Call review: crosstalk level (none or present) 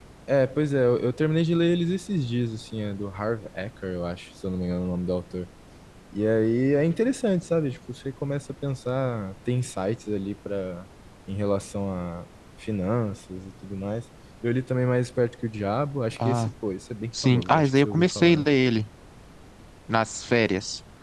present